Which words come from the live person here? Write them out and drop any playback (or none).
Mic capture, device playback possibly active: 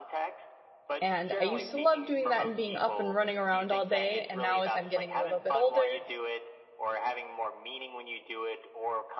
And I used to love doing that and being up and running around all day, and now as I'm getting a little bit older,